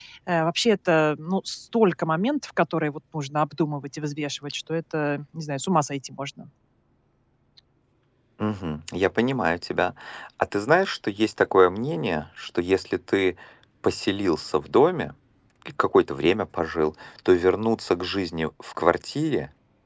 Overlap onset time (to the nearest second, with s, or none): none